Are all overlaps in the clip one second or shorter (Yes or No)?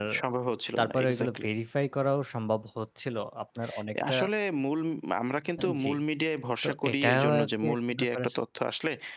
No